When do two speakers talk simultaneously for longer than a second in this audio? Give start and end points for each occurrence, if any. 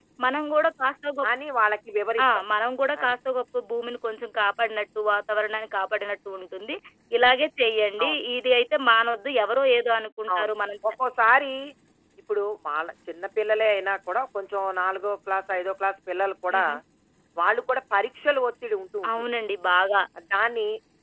none

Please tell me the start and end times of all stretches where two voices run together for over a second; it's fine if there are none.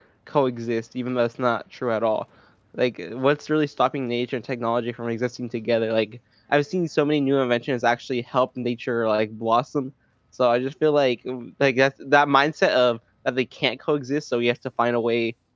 none

